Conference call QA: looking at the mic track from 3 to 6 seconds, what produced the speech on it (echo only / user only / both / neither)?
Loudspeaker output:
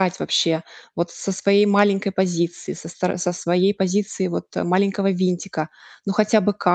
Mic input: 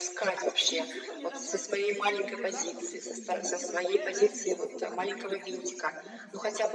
both